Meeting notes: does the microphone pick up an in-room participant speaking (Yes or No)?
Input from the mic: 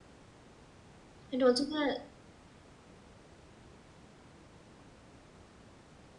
Yes